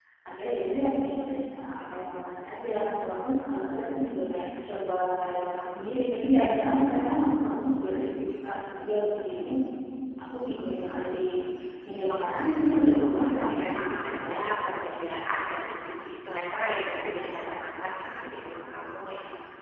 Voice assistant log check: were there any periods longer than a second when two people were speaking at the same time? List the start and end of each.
13.0-14.4

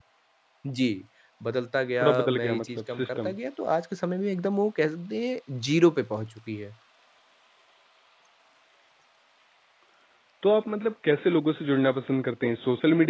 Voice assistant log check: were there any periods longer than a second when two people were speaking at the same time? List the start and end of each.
2.0-3.4

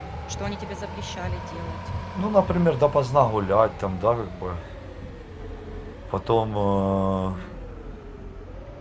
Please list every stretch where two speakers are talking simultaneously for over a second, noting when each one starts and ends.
none

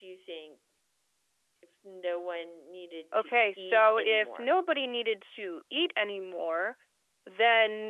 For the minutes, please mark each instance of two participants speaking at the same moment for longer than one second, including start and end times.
3.2-4.5

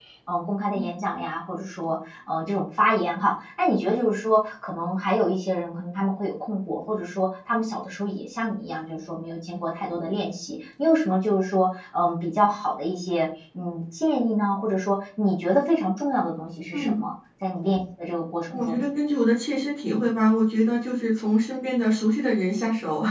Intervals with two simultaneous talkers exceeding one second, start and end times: none

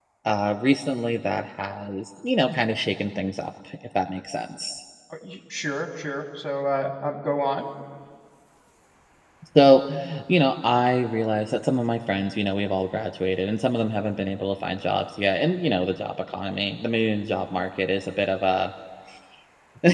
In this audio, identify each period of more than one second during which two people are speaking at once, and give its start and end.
none

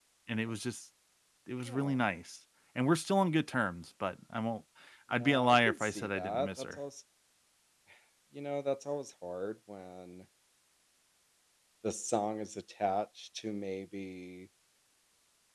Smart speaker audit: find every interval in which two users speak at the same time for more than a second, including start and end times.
5.1-6.8

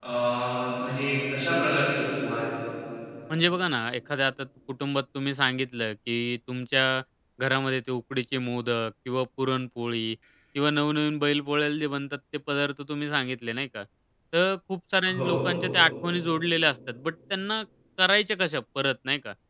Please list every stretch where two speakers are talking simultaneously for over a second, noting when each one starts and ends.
none

